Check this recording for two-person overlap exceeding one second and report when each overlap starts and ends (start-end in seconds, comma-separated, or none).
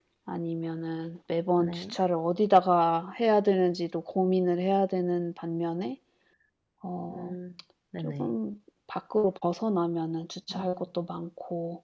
none